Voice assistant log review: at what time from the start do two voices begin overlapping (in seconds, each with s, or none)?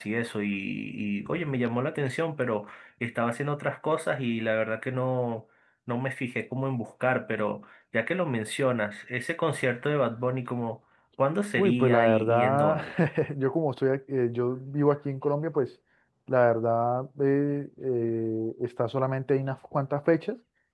11.6 s